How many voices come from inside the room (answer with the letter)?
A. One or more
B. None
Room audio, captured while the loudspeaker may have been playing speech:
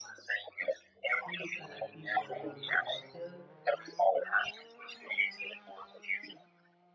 A